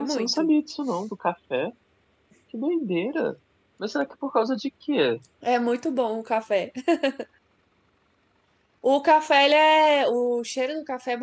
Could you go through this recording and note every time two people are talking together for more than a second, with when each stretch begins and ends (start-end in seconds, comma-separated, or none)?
none